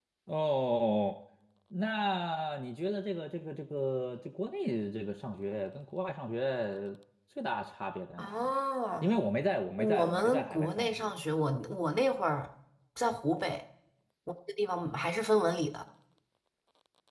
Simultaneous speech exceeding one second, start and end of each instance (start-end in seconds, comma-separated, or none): 9.8-11.1